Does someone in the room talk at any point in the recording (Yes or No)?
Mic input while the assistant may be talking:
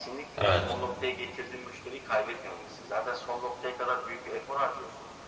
Yes